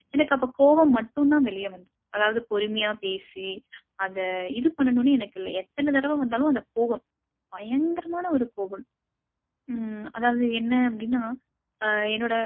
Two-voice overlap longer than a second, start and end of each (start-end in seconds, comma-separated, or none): none